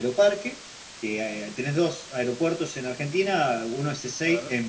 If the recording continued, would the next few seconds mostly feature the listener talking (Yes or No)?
No